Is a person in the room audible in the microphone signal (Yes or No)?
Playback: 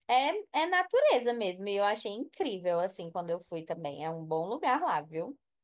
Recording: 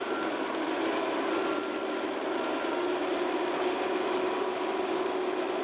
No